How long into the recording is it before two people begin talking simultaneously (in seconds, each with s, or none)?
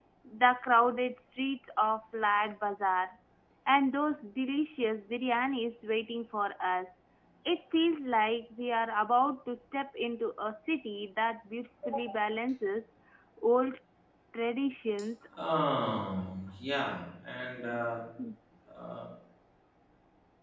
none